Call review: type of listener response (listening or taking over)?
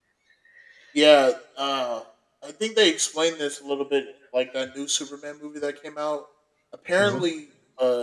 listening